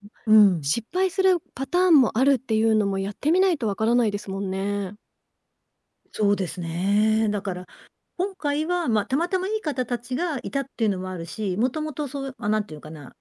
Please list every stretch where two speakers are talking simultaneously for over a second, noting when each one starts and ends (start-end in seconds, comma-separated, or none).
none